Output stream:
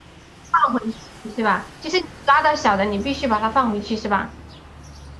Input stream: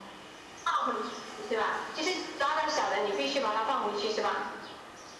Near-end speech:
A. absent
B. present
A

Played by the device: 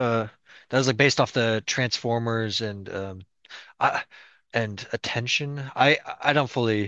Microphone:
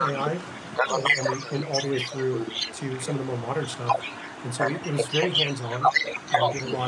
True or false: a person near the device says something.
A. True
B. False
A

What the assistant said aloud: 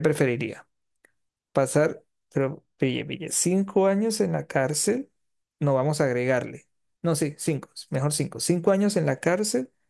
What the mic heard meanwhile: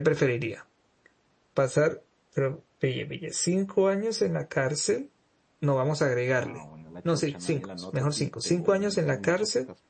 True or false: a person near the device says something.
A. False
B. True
B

